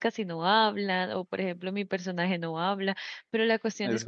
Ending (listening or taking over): listening